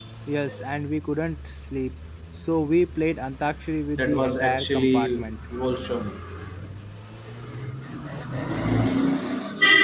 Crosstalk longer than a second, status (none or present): present